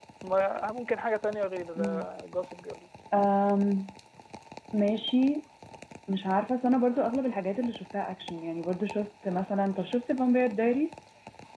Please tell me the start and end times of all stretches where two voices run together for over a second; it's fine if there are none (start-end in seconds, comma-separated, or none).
none